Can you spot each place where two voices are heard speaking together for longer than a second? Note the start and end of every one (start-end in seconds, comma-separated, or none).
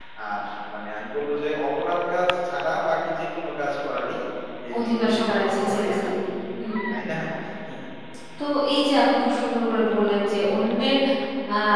4.8-6.0